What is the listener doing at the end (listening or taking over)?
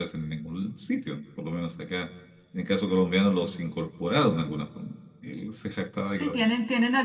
taking over